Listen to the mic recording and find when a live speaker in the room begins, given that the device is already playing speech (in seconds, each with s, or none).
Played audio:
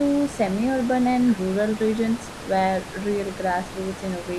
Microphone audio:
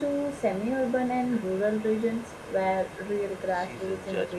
3.5 s